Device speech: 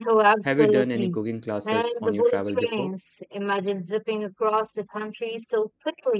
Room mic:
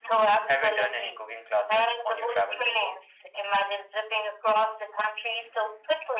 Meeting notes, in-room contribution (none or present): none